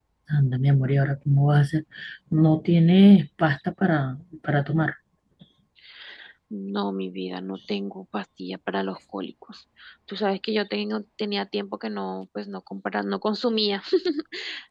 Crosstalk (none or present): none